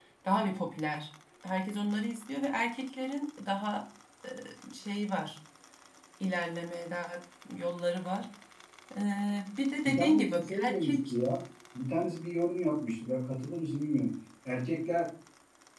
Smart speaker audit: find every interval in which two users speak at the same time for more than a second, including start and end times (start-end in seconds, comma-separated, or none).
9.8-11.1